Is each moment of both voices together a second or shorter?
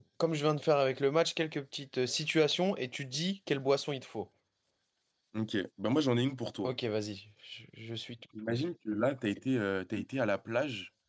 Yes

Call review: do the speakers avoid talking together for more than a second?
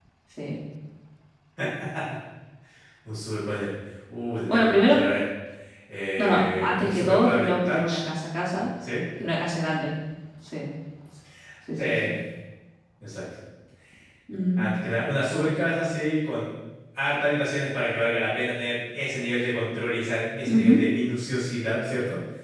No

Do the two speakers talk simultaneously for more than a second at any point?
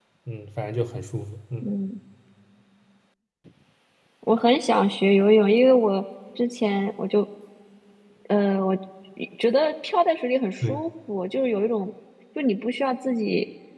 No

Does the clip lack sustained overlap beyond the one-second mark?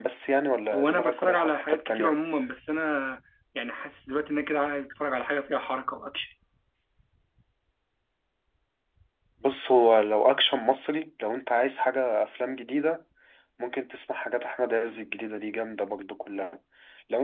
No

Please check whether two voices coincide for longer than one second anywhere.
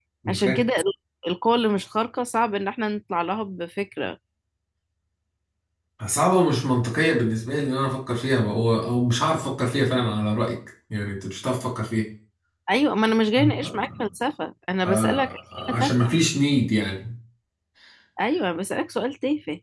Yes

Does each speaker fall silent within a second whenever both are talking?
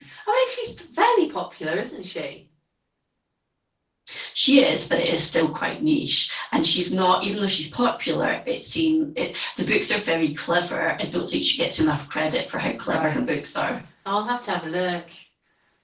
Yes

